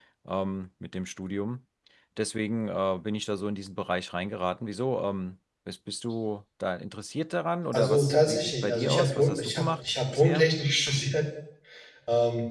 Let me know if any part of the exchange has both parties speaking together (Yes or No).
Yes